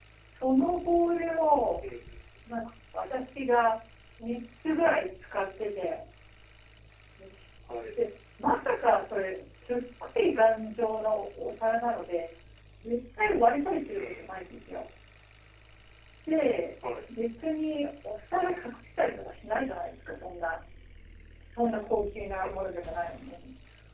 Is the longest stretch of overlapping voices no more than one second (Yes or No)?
Yes